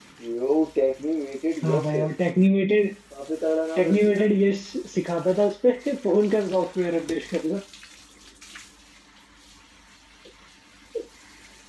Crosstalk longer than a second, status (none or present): none